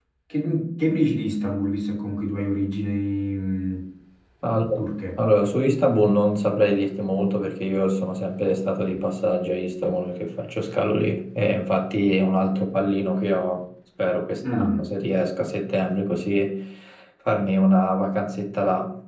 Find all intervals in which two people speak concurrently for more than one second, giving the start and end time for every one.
none

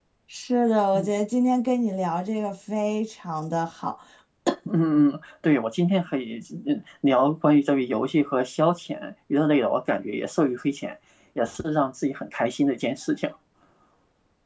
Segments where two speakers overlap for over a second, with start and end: none

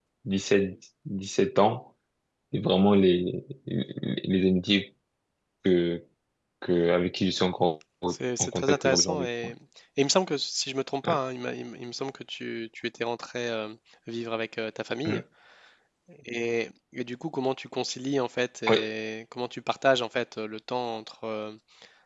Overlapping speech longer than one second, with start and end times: 8.1-9.5

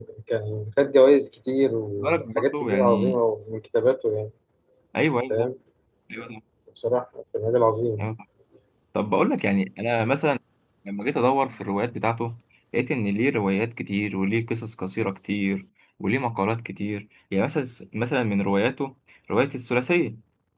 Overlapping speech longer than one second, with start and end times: 2.0-3.2

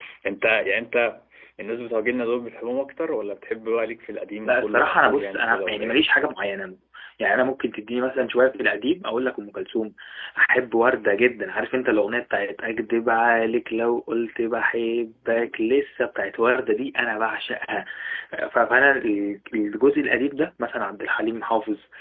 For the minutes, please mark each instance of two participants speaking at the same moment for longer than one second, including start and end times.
4.4-6.0

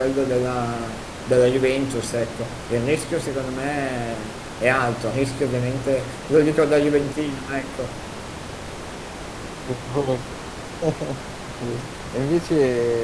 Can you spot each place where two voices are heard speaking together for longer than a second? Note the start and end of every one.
none

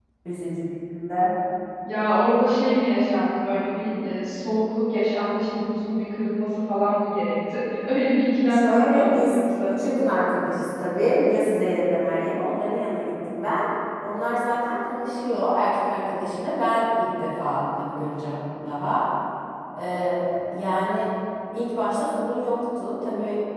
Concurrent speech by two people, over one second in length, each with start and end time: 8.5-9.7

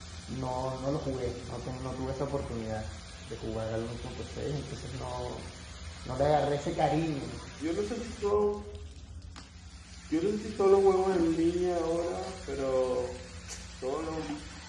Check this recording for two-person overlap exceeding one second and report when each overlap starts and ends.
none

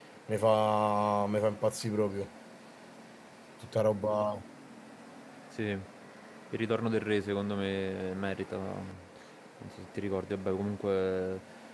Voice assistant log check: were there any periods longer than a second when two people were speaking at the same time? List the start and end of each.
none

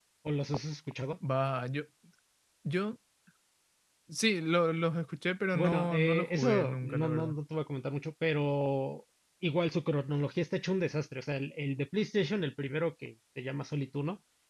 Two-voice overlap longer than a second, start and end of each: 5.5-7.4

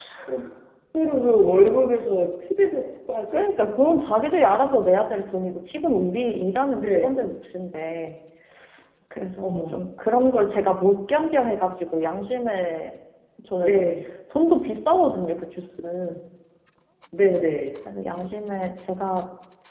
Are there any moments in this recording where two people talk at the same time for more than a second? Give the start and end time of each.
none

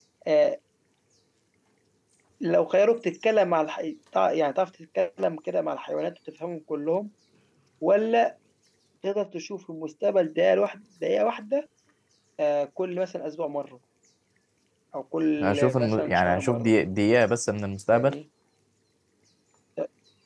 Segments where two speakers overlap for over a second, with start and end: 15.4-16.7

